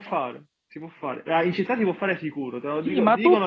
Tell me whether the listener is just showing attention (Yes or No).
No